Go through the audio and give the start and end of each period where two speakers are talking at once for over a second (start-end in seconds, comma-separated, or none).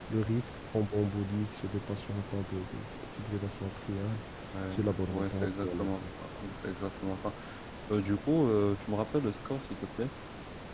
4.7-6.1